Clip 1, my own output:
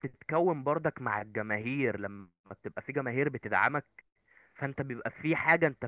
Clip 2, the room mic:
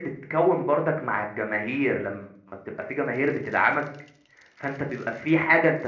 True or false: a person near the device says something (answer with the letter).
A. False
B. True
A